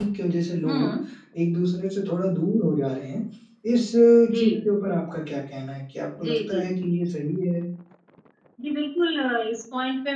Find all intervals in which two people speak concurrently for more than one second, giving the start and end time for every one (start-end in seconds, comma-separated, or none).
none